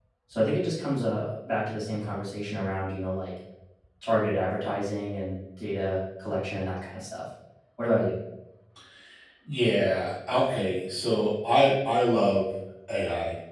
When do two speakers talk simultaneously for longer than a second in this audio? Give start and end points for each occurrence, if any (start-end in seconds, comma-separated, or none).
none